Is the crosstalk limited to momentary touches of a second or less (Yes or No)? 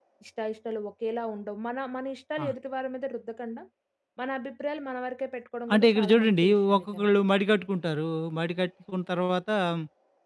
No